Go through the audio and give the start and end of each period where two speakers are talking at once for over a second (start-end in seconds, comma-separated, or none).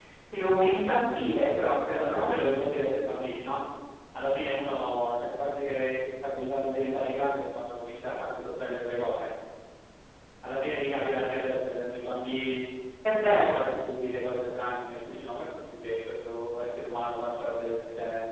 none